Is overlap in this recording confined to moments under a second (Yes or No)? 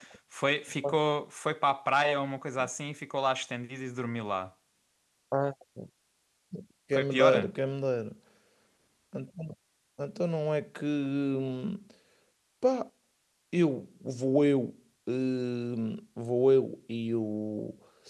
Yes